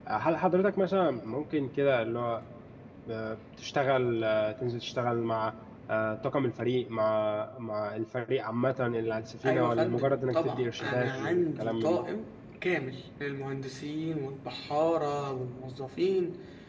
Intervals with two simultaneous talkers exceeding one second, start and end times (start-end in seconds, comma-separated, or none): 9.5-12.0